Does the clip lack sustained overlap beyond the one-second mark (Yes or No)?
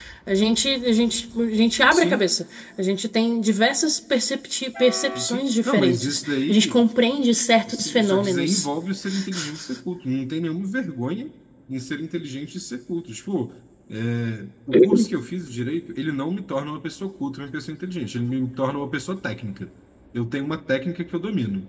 No